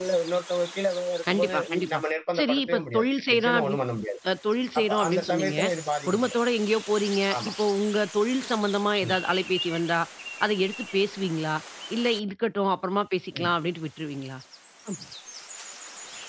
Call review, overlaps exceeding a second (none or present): present